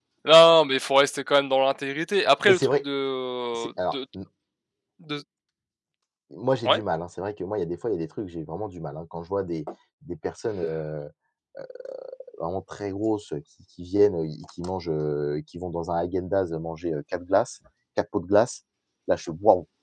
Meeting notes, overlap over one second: none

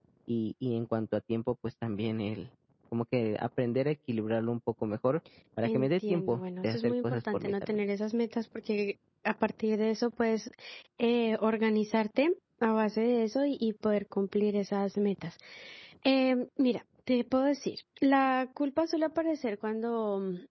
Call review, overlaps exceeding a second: present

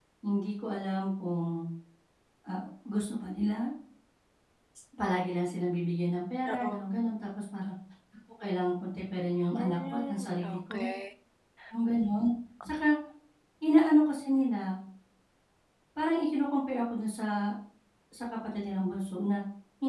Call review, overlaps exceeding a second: present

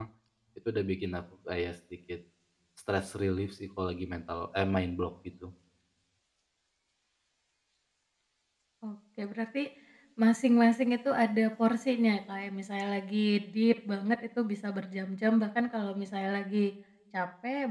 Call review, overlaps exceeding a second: none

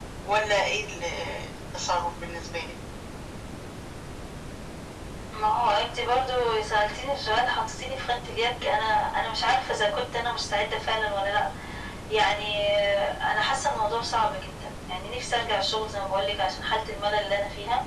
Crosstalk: none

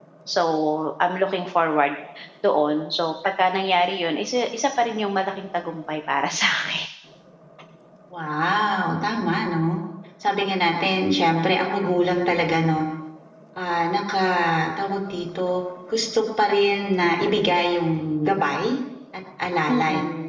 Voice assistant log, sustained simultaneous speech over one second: none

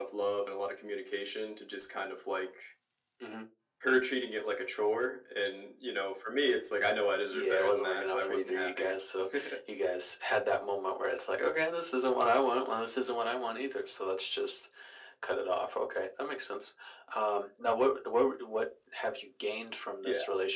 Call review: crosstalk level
present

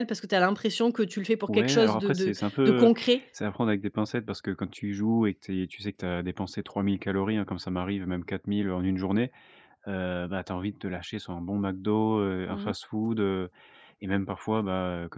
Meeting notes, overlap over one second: present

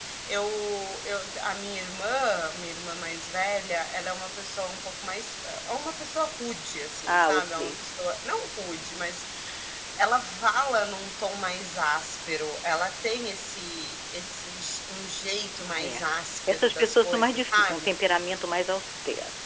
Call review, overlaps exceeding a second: present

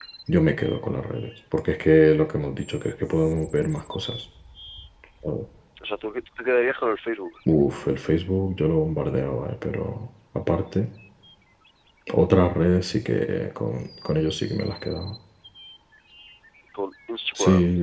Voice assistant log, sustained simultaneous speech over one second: none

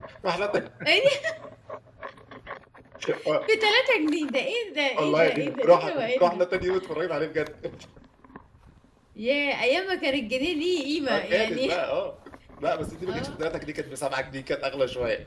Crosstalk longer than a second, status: present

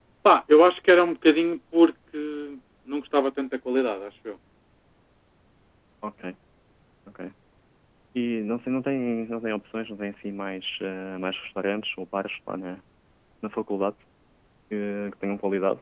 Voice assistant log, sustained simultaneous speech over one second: none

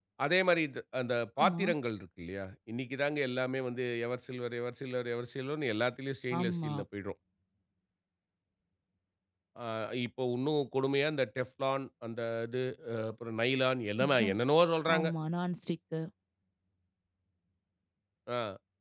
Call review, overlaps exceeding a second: none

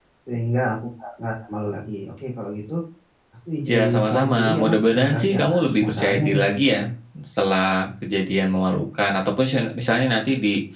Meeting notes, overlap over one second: present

